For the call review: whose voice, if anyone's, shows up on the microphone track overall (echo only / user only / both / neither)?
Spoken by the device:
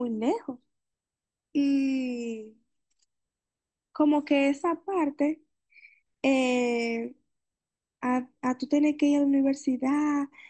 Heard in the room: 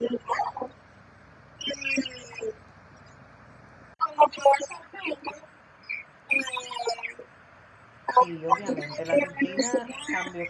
both